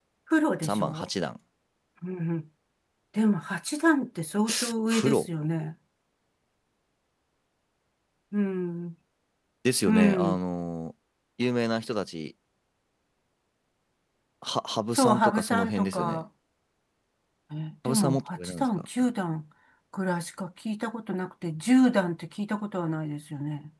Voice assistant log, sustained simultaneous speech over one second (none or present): present